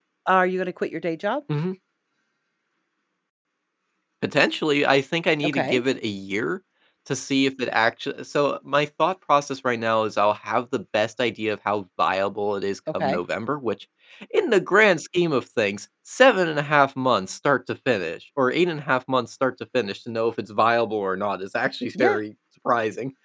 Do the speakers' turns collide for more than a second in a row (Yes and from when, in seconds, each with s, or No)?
No